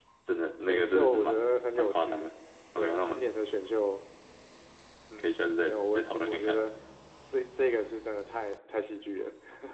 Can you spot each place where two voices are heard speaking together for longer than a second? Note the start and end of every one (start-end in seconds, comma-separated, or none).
0.7-2.2, 5.2-6.7